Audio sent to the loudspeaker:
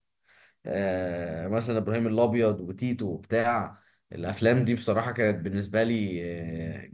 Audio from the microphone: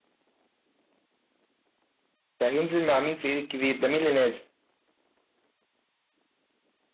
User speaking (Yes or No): Yes